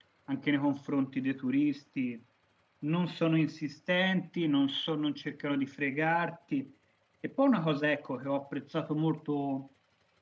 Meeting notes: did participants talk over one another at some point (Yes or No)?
No